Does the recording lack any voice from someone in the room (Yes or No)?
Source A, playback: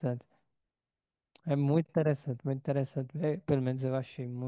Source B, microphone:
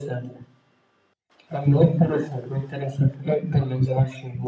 Yes